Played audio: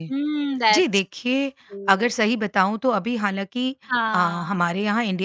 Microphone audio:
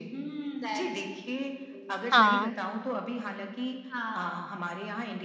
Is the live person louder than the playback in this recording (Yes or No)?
Yes